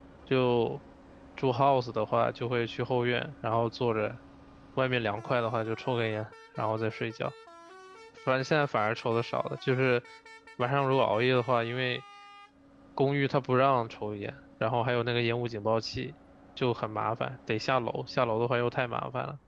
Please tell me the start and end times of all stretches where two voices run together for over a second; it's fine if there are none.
none

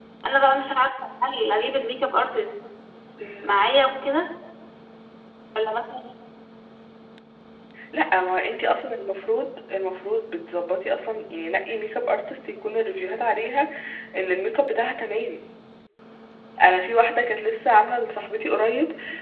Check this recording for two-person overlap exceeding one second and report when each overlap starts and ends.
none

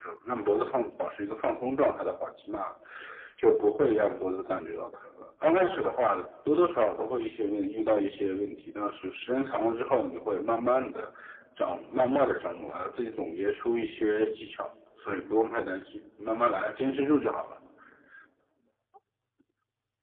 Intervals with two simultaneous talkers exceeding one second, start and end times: none

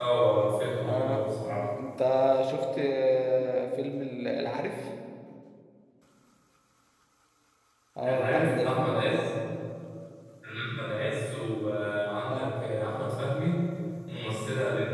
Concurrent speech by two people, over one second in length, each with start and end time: 8.0-9.3

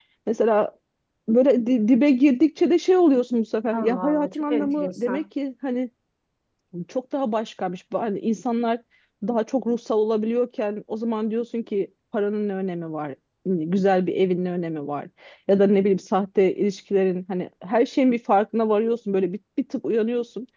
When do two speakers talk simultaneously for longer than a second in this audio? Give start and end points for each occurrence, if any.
3.7-5.2

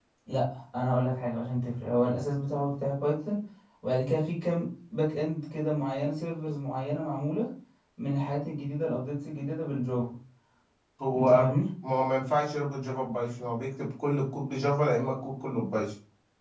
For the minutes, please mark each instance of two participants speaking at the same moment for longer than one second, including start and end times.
none

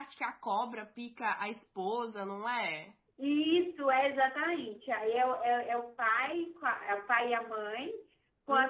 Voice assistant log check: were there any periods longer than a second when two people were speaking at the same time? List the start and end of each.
none

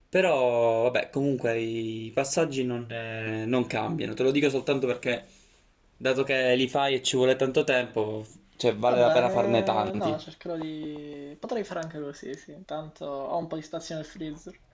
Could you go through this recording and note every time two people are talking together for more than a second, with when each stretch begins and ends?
8.9-10.2

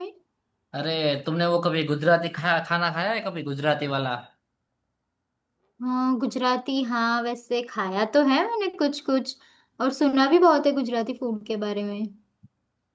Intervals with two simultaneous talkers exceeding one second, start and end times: none

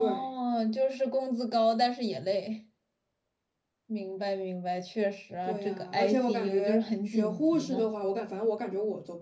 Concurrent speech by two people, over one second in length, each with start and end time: 5.4-7.8

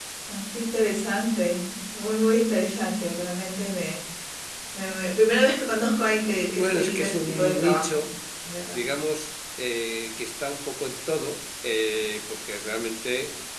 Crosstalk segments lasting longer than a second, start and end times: 6.5-8.0

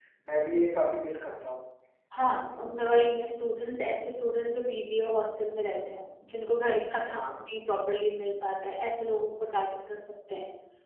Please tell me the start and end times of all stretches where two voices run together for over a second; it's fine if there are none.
none

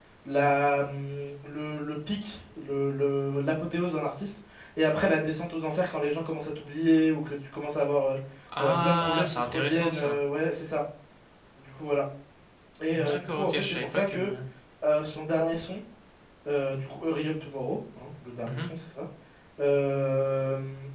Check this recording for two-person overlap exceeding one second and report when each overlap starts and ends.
8.6-10.2, 12.9-14.3

